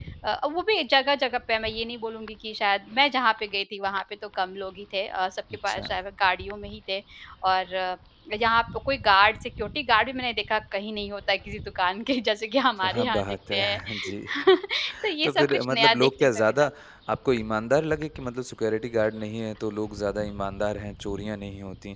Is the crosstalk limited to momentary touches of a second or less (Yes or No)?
No